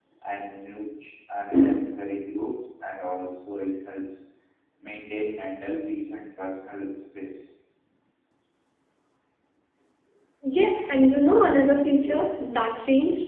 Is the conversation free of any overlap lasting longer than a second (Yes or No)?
Yes